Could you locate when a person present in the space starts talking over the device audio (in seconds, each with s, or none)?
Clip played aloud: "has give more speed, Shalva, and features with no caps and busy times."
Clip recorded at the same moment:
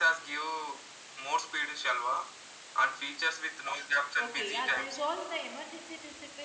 4.2 s